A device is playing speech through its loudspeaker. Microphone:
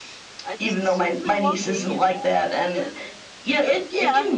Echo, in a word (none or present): present